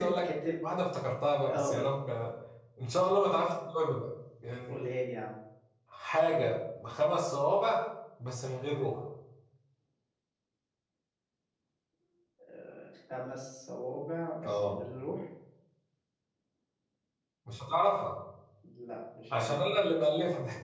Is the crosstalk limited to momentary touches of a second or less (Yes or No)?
Yes